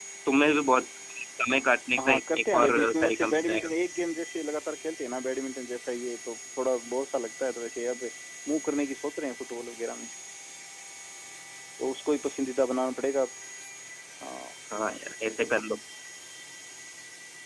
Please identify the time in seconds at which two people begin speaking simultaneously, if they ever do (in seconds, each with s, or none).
2.0 s